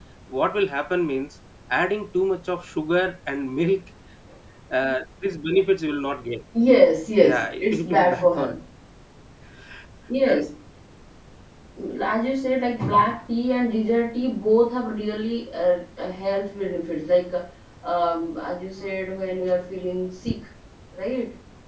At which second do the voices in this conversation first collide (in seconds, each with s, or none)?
7.2 s